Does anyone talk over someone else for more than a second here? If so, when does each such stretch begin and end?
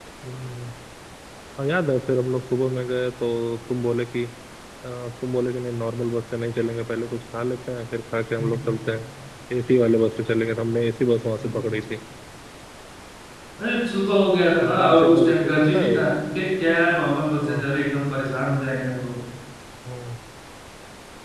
14.6-15.9

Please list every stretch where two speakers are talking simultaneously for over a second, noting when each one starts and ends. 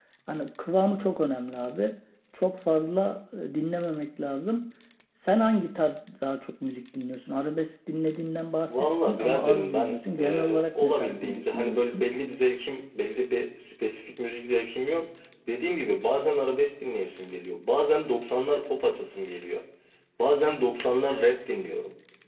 8.7-12.1

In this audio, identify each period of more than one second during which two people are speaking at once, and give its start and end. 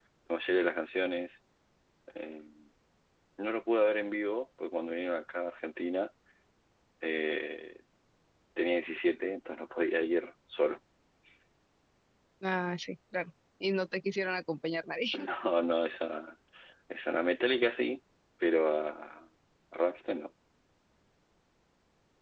none

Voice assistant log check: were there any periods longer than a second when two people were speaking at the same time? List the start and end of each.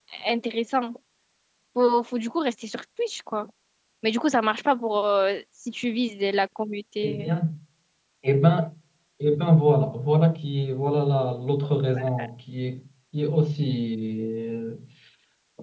none

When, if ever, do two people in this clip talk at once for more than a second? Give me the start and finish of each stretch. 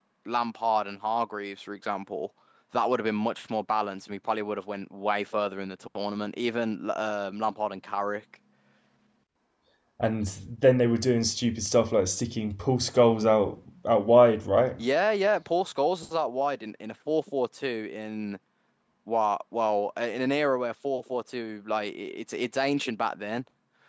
none

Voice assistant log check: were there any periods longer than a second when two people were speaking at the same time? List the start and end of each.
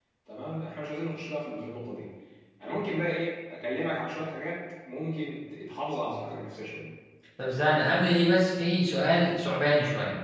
none

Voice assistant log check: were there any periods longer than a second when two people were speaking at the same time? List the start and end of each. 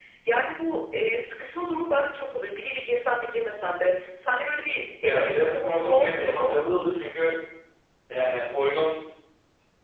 5.0-6.6

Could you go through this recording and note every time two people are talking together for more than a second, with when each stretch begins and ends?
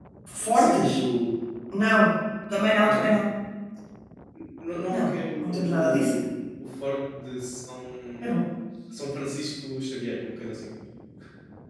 4.9-6.2

